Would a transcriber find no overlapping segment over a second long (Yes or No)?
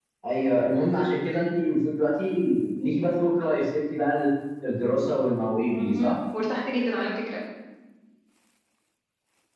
Yes